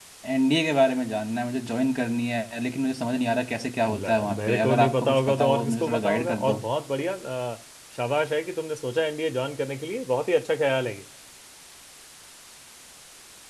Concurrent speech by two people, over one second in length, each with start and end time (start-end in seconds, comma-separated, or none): 3.9-6.6